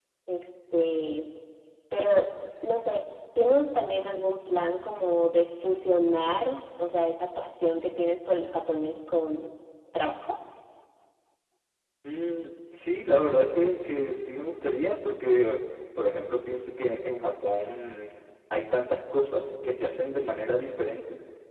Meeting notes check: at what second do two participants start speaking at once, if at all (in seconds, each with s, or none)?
none